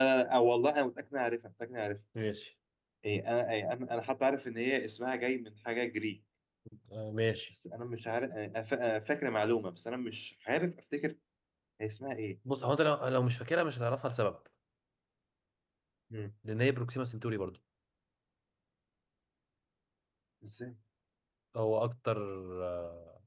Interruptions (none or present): none